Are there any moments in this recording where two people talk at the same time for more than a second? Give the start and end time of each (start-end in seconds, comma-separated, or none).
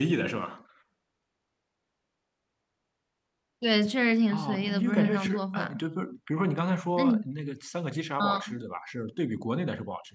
4.3-5.8